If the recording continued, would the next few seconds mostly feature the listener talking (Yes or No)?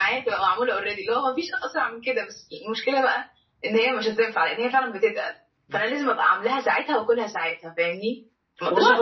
No